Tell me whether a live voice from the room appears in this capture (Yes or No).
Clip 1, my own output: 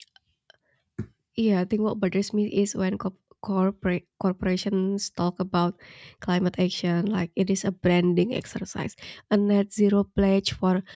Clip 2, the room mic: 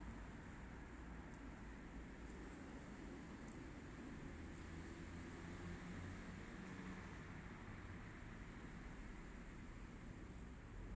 No